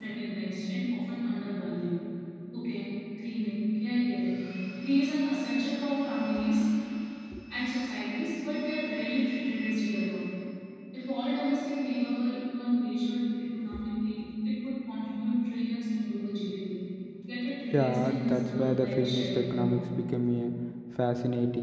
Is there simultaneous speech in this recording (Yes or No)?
Yes